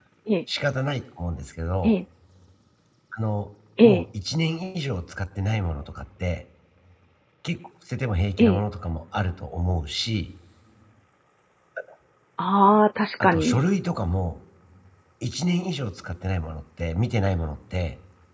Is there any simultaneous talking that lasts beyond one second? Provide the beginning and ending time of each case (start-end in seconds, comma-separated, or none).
none